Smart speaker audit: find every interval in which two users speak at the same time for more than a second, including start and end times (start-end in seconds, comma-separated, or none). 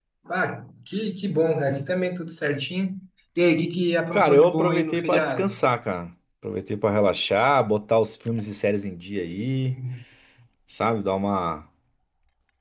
4.1-5.5